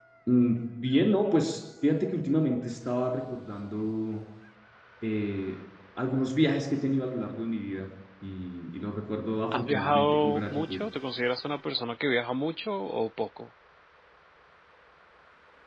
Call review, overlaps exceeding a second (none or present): present